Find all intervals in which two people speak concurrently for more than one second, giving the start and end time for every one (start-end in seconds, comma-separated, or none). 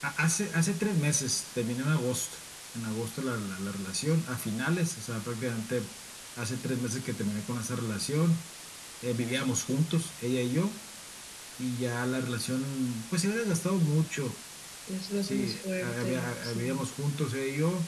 15.2-16.8